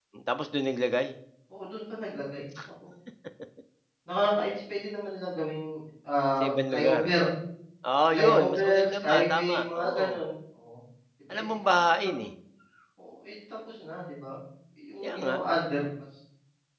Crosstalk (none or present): present